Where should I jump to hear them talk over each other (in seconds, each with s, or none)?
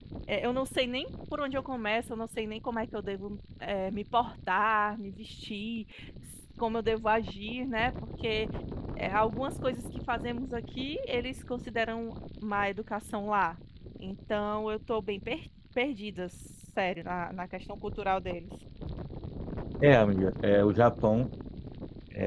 none